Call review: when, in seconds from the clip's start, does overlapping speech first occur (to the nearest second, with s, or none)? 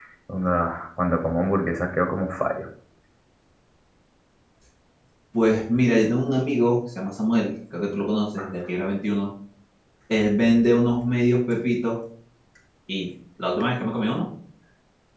none